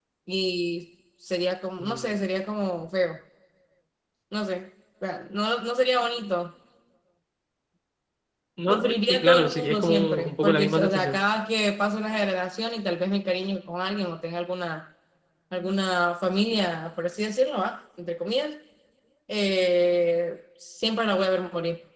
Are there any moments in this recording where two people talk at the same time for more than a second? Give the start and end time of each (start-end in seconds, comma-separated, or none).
8.7-11.2